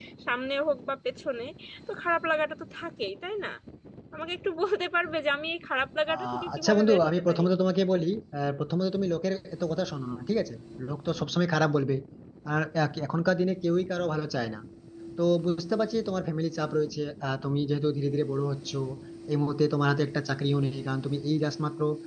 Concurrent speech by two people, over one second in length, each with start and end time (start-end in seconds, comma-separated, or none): 6.1-7.4